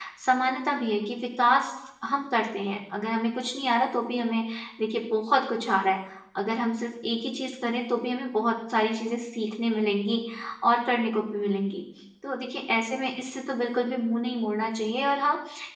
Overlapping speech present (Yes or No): No